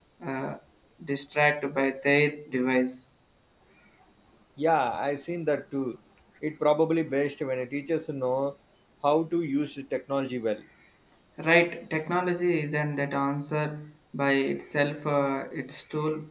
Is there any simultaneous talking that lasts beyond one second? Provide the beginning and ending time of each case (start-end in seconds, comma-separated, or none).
none